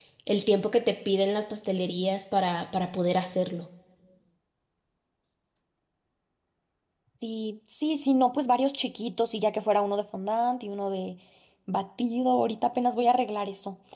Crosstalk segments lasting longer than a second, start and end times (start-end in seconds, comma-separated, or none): none